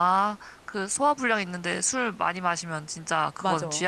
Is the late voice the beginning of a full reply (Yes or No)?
Yes